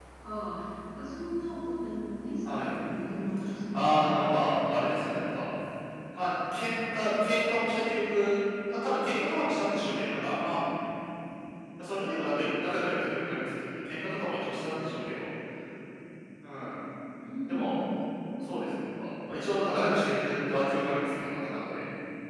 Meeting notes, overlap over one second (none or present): none